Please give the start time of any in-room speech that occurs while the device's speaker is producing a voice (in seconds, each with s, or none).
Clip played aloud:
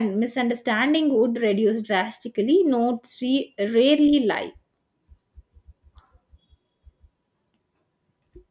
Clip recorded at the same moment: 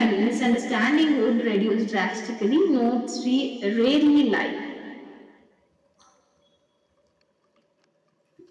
none